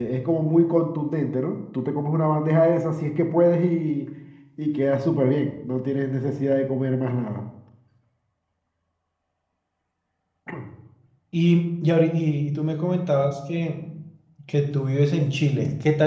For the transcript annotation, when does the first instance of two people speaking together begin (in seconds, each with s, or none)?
none